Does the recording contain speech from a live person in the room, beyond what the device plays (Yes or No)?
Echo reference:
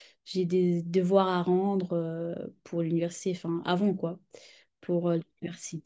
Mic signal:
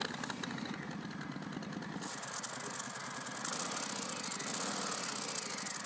No